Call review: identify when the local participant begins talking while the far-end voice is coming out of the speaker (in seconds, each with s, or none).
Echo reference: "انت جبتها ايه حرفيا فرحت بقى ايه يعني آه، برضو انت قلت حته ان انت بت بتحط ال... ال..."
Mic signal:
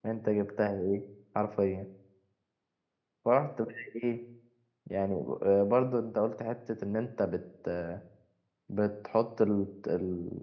none